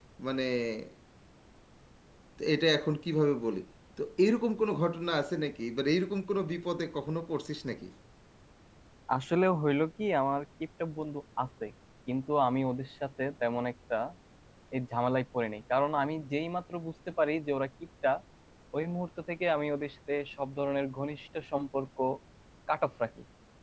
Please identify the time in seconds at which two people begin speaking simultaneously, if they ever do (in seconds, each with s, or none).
none